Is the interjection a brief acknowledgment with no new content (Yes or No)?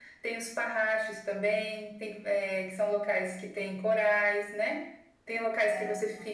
Yes